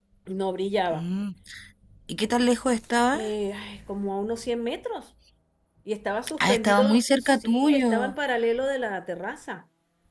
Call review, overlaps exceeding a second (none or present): present